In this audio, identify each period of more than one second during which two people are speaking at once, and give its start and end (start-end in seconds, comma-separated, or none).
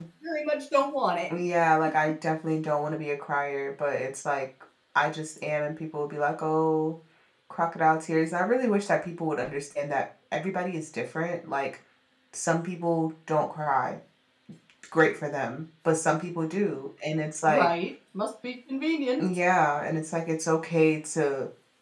none